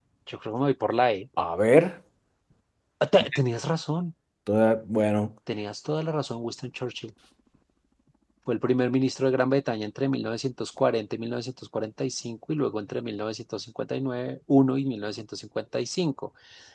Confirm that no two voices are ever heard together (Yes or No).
Yes